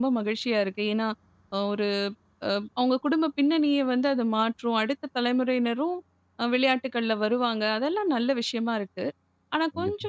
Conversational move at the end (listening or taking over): listening